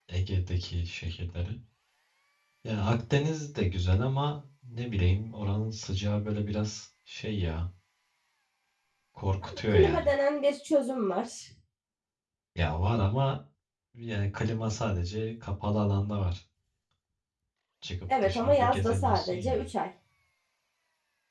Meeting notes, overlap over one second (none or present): present